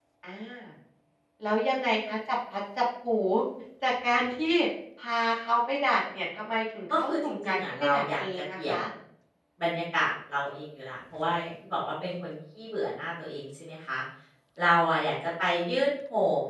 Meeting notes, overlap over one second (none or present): present